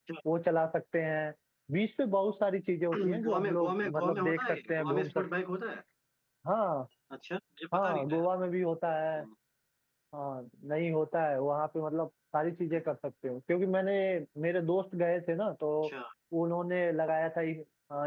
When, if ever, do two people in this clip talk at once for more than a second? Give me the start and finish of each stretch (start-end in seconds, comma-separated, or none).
2.9-5.2